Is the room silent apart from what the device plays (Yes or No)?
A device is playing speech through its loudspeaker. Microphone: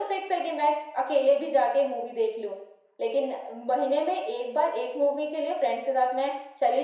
Yes